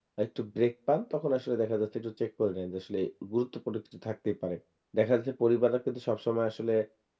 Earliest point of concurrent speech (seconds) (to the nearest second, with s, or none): none